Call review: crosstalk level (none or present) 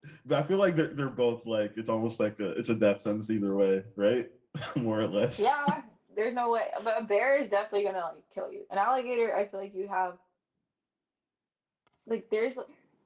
none